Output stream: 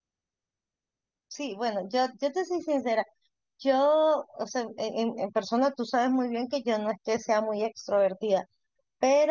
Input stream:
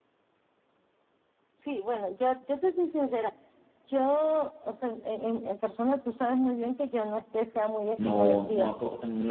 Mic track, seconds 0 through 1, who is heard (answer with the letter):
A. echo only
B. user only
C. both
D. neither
D